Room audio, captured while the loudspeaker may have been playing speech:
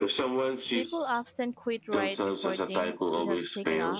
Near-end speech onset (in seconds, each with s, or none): 0.7 s